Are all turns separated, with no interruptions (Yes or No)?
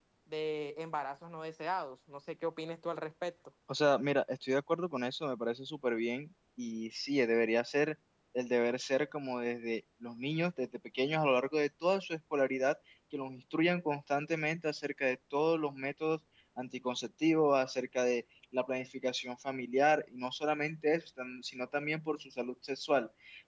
Yes